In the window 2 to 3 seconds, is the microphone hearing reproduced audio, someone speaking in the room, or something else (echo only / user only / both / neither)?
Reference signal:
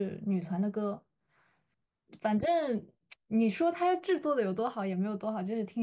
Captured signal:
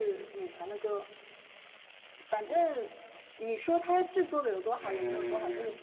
echo only